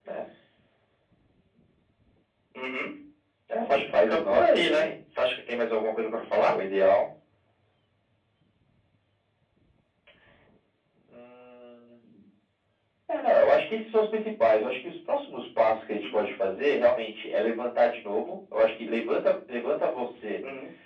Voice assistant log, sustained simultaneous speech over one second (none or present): present